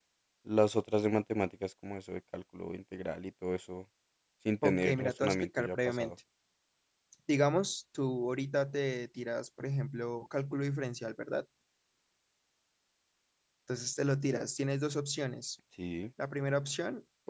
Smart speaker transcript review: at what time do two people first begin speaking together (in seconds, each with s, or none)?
4.6 s